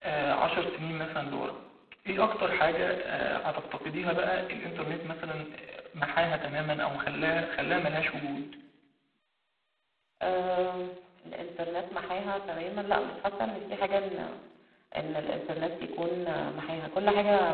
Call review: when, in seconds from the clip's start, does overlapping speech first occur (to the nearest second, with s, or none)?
none